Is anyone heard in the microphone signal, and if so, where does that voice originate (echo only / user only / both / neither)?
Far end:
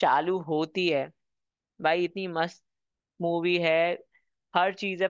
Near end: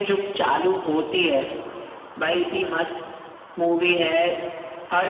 echo only